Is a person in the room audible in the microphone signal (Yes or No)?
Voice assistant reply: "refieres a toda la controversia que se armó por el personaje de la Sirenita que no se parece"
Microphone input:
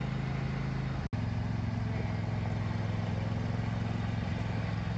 No